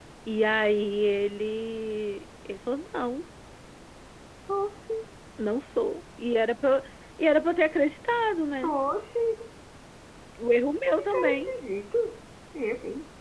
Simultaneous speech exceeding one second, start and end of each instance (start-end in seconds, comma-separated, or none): none